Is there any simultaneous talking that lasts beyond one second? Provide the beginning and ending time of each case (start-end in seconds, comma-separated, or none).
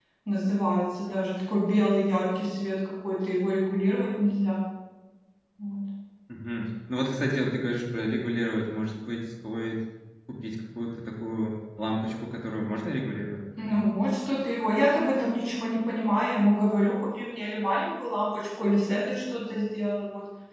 none